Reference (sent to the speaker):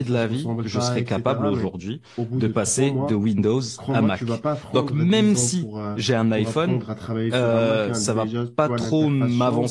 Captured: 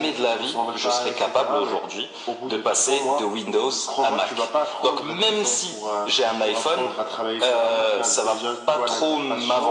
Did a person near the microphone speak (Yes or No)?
No